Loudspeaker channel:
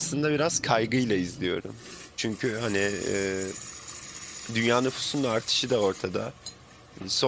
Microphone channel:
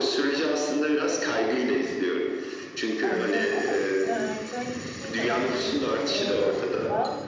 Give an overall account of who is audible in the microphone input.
both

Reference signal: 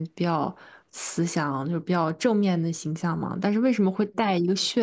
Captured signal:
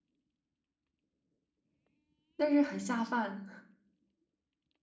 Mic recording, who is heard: user only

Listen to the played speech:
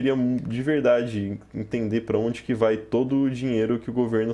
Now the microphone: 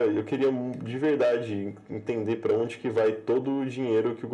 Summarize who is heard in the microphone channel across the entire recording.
echo only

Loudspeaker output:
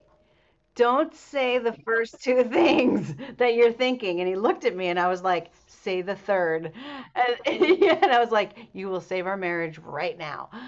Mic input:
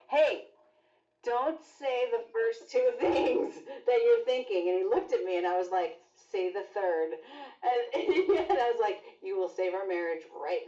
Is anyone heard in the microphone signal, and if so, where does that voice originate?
echo only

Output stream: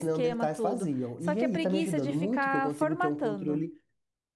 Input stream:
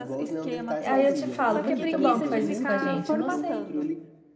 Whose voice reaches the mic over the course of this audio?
both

